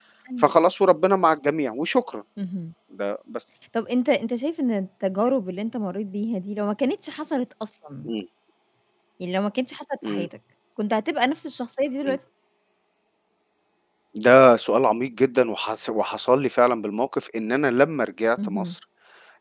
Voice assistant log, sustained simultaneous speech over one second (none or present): none